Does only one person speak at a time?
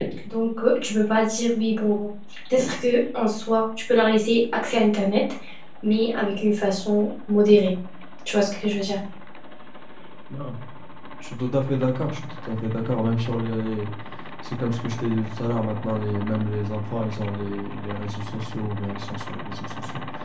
Yes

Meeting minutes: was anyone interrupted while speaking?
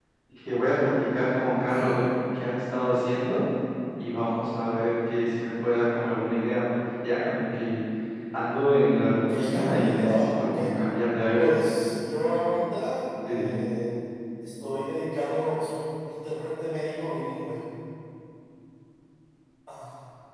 Yes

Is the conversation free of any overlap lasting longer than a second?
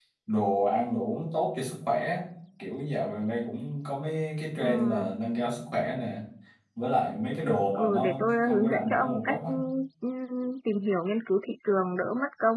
No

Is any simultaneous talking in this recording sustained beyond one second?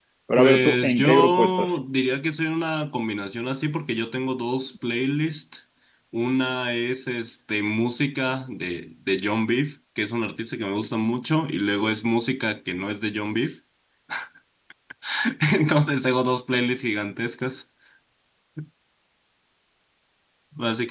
Yes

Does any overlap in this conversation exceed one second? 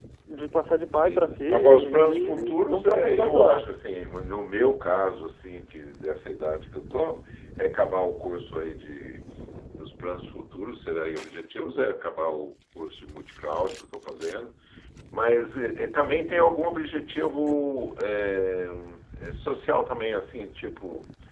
Yes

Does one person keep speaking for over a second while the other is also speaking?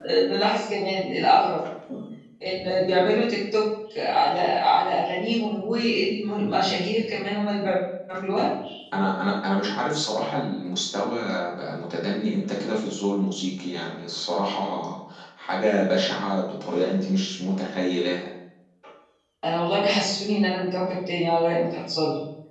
No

